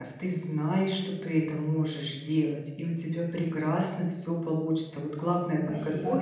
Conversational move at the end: listening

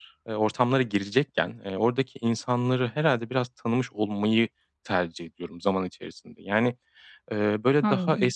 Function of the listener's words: listening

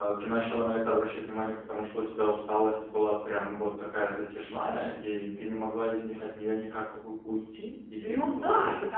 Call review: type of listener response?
taking over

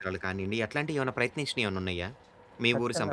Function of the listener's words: taking over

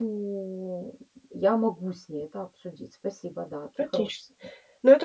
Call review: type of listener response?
taking over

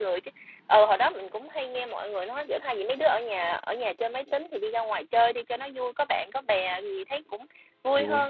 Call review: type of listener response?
listening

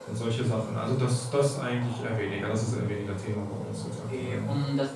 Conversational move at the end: taking over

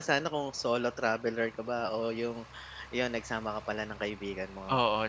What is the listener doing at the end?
taking over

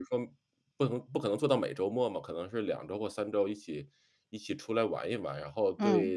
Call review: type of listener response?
listening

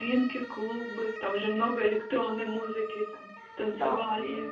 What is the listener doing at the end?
taking over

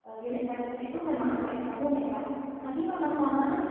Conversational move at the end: listening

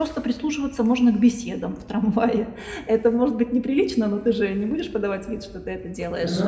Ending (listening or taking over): listening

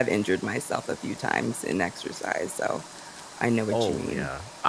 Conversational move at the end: taking over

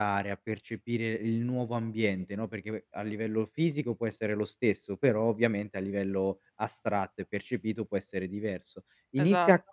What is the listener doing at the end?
listening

